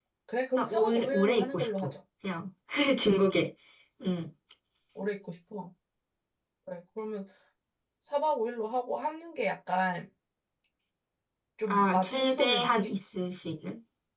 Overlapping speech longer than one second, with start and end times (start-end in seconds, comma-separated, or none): 0.6-1.9, 11.7-12.9